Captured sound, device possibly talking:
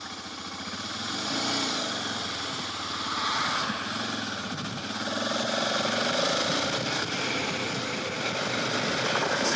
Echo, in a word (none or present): none